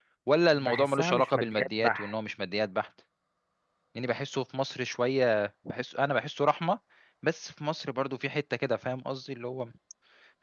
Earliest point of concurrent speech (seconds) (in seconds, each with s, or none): 0.6 s